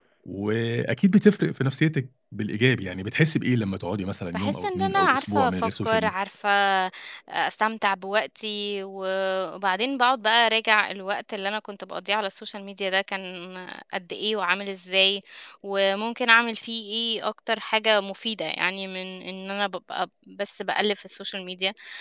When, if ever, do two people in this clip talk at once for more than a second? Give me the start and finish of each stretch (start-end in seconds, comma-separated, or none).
4.3-6.1